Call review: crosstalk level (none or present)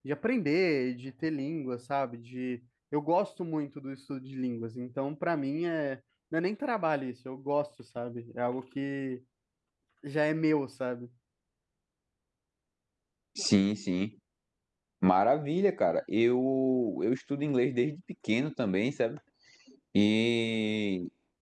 none